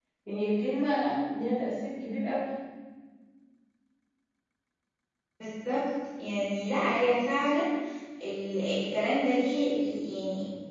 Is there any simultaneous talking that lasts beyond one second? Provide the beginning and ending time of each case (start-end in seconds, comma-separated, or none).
none